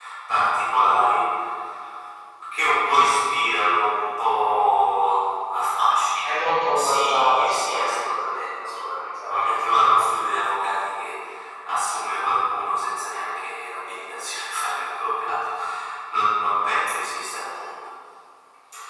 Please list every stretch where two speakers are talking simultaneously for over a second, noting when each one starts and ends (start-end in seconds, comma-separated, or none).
6.2-9.7